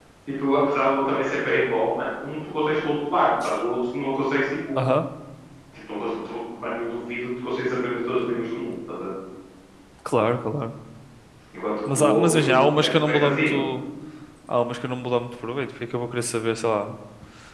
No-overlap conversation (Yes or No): No